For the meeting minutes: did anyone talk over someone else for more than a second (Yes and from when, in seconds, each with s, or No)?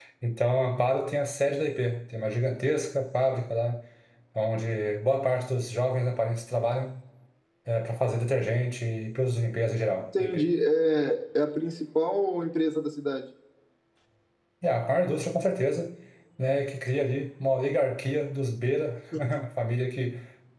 No